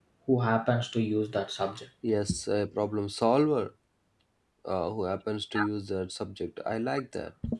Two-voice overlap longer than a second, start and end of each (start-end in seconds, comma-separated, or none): none